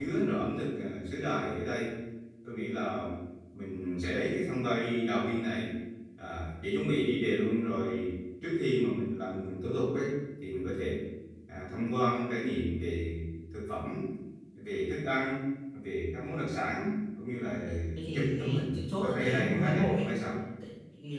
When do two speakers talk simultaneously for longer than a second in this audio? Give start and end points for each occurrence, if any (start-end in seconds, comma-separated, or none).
18.1-20.1